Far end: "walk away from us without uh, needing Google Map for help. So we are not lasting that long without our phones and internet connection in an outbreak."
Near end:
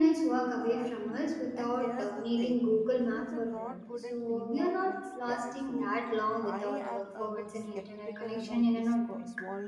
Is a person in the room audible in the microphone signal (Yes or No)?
Yes